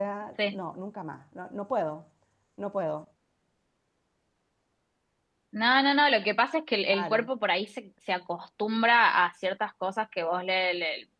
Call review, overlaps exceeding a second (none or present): none